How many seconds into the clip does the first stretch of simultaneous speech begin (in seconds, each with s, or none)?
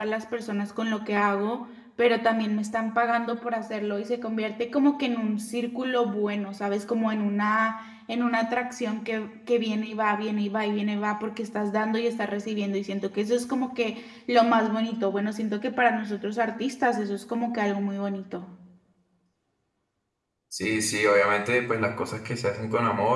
none